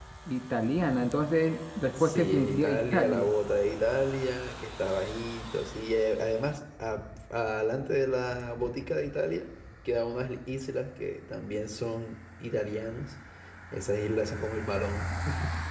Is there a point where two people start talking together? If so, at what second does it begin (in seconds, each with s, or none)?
2.0 s